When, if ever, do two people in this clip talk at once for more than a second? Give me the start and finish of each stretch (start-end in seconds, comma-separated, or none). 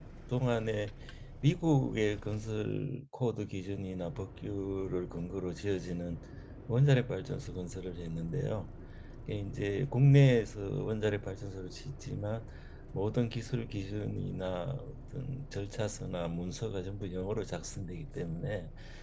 none